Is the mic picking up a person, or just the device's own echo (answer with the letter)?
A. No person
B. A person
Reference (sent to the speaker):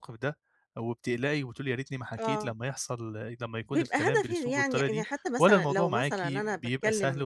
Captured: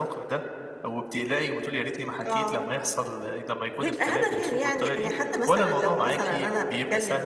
A